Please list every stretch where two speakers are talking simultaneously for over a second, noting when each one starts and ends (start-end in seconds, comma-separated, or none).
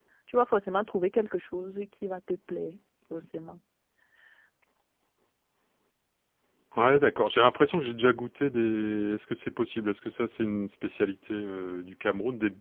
none